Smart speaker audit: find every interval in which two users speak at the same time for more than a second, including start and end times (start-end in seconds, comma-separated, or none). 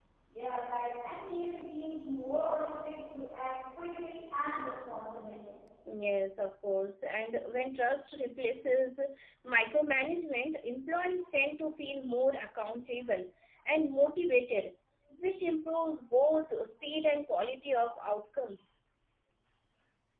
none